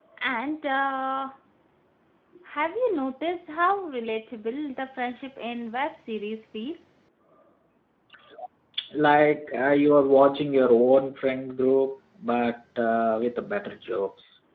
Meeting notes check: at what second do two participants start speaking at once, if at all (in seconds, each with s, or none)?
none